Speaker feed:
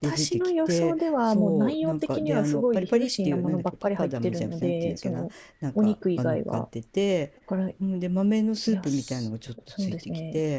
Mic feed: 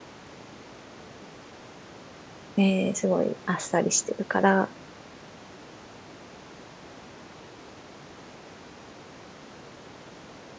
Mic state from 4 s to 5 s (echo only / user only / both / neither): user only